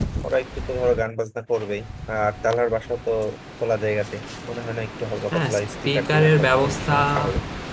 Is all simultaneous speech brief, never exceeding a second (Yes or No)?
No